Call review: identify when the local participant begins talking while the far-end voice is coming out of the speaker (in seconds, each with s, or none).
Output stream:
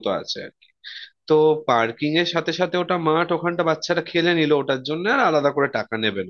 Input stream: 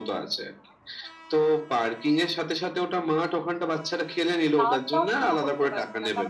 4.6 s